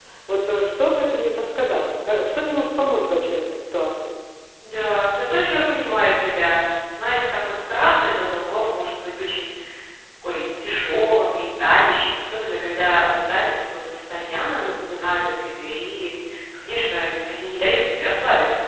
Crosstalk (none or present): none